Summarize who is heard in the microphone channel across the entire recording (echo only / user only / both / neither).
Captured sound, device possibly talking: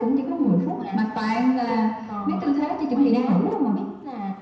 echo only